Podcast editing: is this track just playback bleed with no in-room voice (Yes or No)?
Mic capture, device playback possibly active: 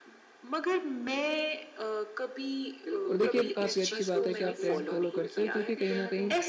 No